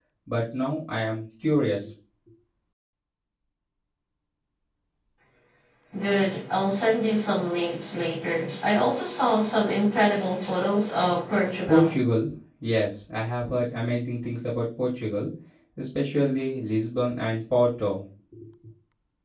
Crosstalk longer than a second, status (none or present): none